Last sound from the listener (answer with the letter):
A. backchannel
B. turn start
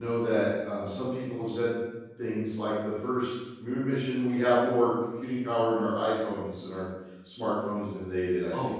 B